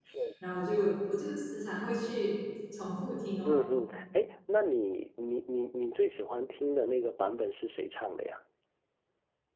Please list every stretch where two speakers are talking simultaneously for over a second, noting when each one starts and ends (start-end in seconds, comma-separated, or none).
none